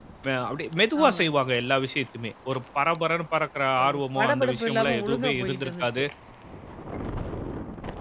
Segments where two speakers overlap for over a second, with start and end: 3.8-6.0

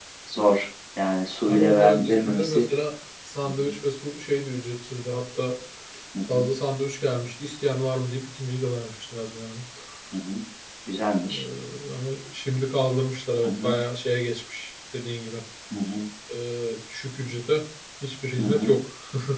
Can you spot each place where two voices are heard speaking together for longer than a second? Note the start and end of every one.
1.5-2.7

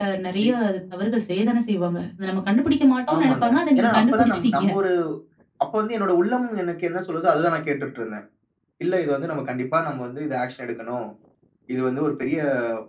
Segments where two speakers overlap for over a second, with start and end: 3.1-4.7

